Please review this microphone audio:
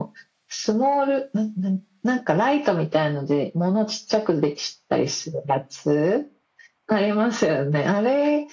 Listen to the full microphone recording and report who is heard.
echo only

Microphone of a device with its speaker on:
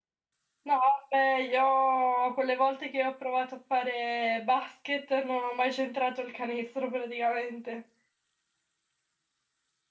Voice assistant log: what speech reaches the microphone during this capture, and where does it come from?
user only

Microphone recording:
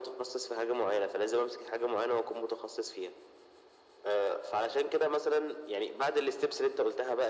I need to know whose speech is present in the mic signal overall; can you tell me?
echo only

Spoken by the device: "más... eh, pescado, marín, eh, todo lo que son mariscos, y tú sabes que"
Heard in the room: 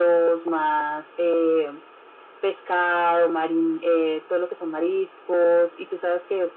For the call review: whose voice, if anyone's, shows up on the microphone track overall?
echo only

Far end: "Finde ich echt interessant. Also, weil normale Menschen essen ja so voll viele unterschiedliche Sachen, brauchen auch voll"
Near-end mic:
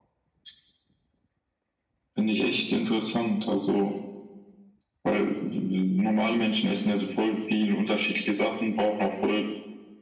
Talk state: echo only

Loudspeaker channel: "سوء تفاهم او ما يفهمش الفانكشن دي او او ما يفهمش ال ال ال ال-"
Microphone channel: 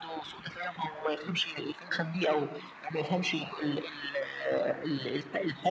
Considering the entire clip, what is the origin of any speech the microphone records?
echo only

